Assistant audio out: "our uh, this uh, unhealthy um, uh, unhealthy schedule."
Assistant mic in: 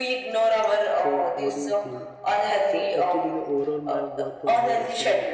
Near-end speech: present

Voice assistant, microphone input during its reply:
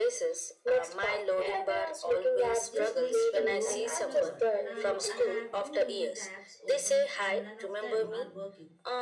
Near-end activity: present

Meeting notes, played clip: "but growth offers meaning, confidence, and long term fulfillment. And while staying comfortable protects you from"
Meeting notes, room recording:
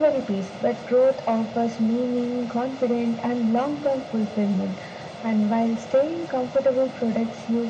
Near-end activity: none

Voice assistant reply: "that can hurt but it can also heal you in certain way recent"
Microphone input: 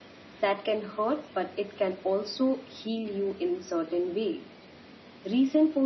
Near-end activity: none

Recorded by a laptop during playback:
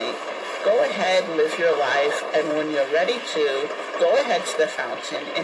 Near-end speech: none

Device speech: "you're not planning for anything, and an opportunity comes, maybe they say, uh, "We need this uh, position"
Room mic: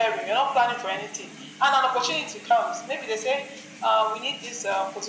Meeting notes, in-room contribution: none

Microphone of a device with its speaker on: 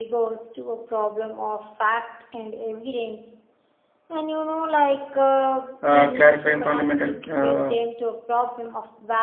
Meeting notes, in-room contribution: present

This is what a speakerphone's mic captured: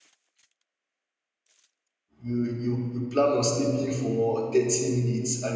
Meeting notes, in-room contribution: present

